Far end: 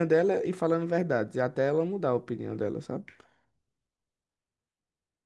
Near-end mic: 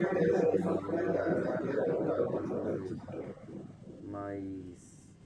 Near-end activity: present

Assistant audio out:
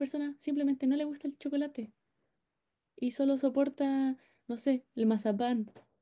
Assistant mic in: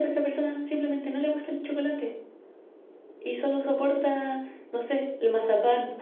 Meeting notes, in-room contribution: none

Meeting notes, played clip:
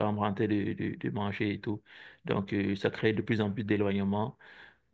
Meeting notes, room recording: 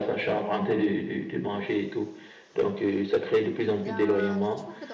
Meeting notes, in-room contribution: present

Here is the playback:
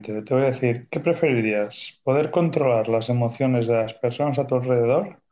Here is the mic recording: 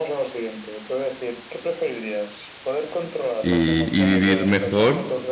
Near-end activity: present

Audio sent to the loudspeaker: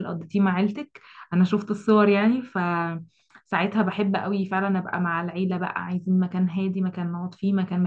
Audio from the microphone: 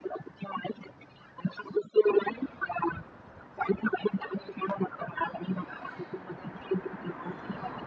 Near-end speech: none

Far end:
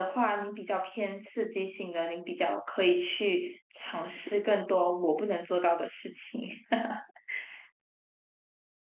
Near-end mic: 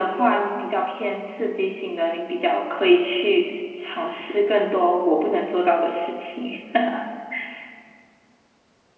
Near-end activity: none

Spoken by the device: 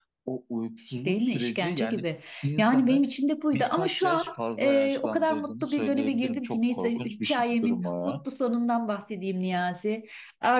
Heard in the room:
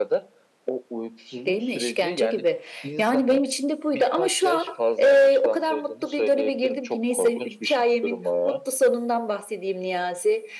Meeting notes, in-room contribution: none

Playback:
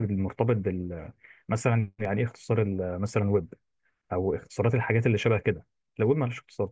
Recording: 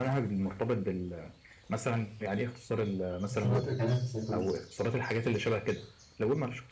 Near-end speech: present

